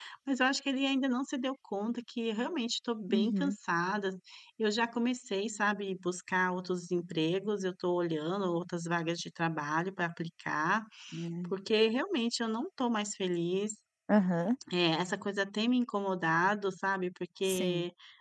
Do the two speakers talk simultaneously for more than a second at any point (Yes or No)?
No